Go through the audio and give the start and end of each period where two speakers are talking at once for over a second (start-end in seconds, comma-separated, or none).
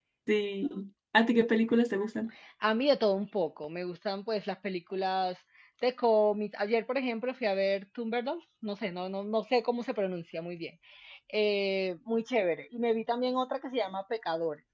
none